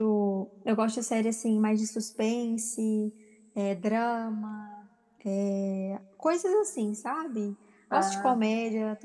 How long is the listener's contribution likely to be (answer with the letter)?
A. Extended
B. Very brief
B